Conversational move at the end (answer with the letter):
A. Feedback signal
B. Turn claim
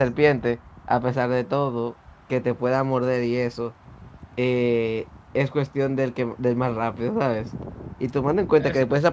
A